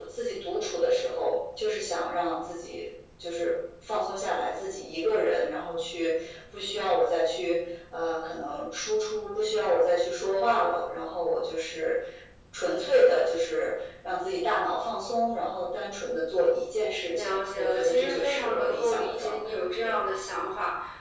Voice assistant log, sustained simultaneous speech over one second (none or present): present